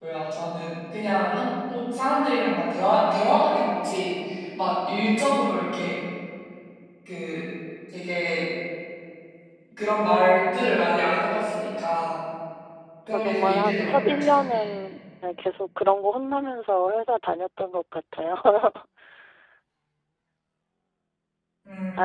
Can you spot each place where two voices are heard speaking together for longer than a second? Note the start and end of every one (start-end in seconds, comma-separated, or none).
13.1-14.5